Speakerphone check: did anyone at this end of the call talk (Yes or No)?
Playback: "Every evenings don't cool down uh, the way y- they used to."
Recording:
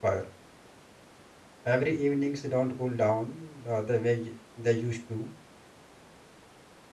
No